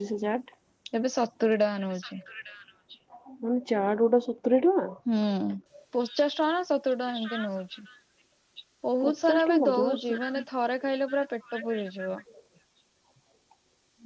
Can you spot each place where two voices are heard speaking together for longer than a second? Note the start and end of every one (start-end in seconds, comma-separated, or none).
9.0-10.4